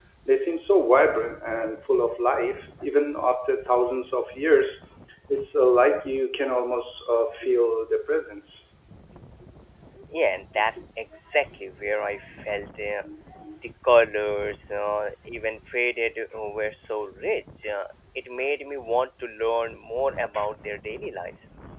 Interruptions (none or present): none